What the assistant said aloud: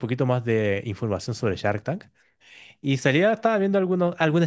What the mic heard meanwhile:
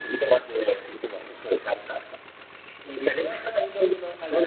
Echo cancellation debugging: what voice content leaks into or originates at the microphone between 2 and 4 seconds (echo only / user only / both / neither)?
echo only